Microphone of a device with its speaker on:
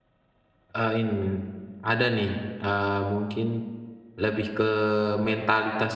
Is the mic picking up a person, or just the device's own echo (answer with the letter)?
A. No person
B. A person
B